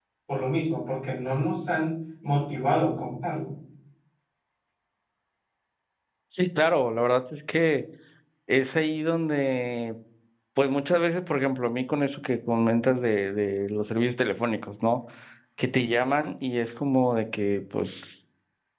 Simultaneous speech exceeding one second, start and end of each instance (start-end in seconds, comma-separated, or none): none